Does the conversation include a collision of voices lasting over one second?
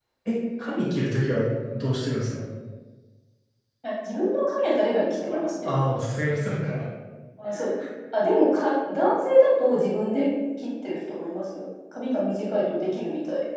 No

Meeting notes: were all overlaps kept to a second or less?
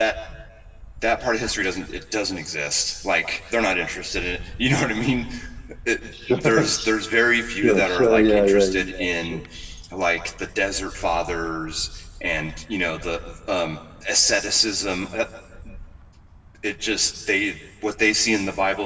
No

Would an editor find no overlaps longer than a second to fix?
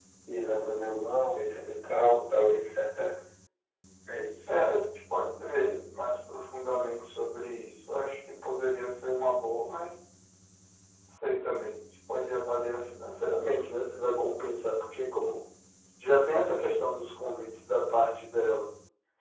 Yes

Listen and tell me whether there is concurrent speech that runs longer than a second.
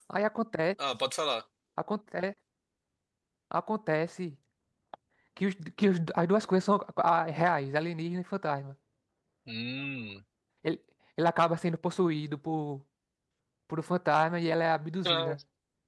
No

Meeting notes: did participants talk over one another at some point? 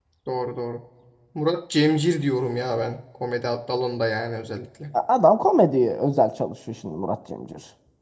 No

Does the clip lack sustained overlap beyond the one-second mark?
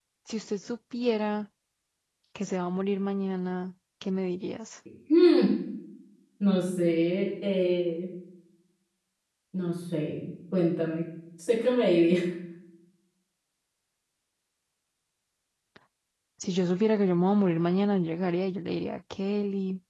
Yes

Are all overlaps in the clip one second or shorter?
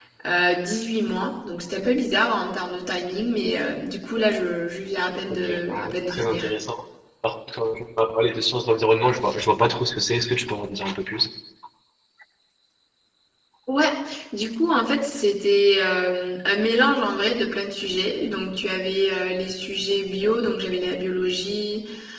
No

